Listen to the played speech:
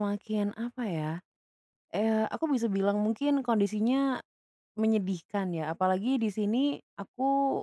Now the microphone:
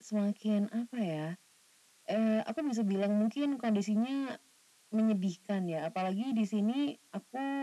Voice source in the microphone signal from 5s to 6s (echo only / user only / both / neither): echo only